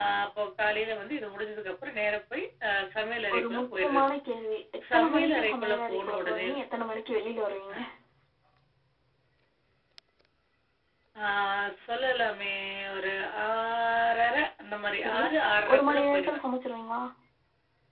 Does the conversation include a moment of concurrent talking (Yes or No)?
Yes